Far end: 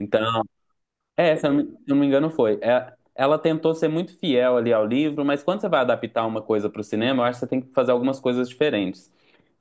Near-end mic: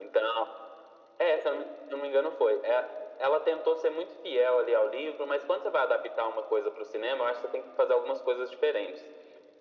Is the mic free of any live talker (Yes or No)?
Yes